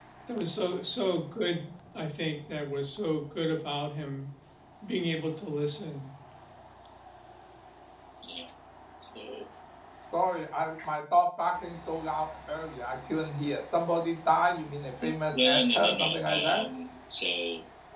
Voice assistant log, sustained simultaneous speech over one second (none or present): present